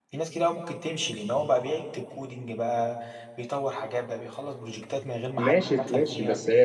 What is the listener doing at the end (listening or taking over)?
taking over